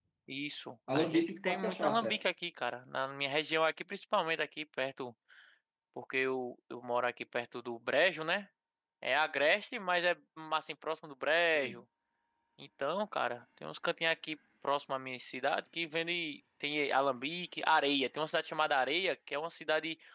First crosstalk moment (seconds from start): 1.0 s

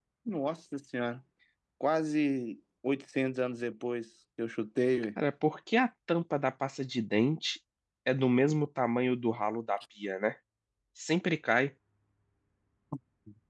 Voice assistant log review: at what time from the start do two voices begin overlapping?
none

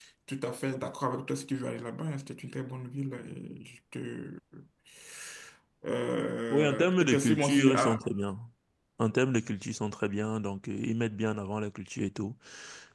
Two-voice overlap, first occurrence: 6.5 s

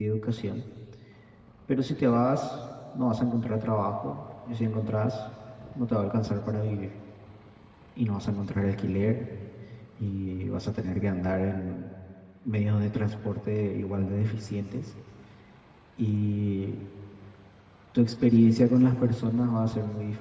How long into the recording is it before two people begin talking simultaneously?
none

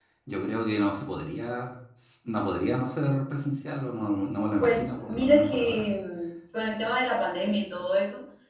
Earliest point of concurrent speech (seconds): 4.6 s

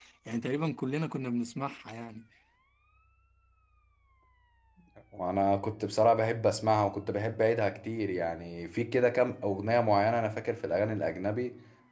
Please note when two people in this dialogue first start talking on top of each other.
none

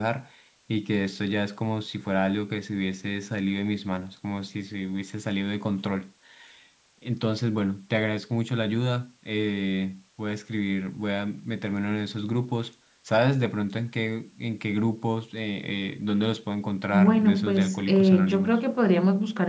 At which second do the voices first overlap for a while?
16.9 s

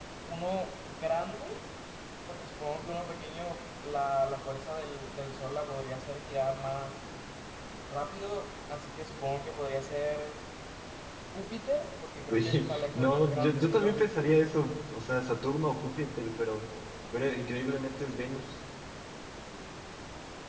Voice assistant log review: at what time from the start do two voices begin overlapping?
12.3 s

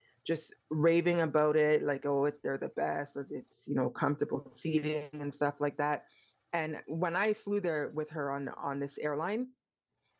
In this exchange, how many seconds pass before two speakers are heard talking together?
none

